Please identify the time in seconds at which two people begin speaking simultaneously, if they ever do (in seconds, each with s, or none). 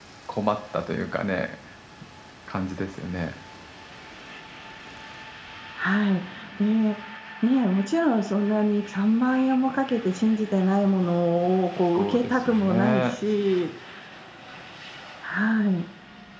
11.9 s